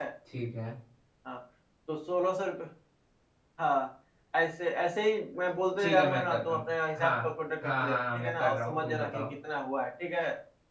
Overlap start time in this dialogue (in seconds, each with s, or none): 5.8 s